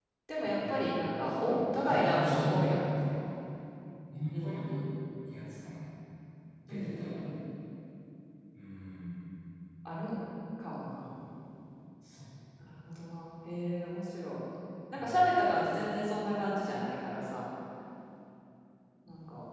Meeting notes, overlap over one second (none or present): present